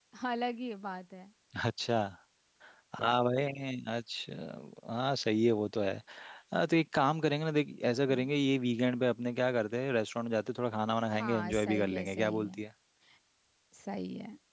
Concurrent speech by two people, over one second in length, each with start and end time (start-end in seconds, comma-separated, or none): 11.2-12.6